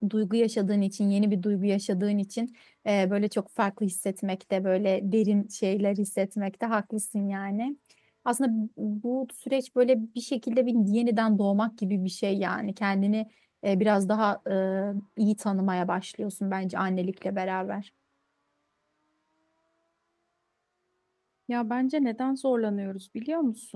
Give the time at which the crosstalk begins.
none

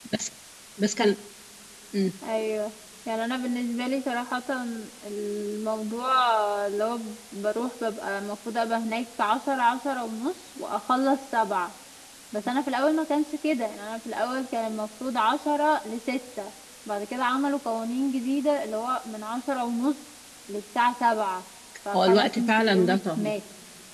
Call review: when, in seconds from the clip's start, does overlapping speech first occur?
21.9 s

